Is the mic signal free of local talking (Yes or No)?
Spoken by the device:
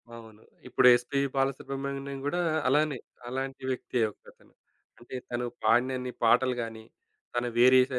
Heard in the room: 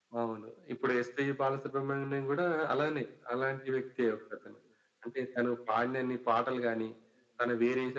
Yes